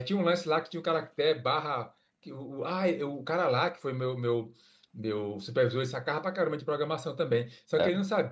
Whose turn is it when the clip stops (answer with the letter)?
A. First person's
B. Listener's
A